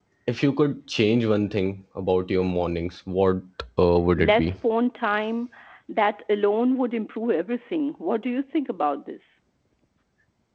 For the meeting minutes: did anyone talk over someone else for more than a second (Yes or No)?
No